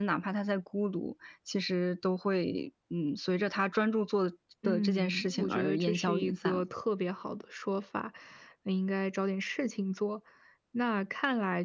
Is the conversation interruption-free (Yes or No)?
No